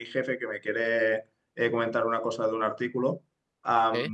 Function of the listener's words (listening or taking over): listening